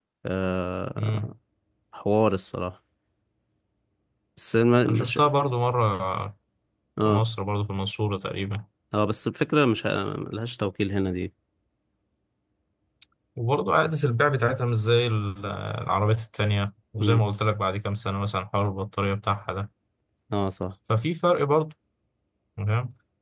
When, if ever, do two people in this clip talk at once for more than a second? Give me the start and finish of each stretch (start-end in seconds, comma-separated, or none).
none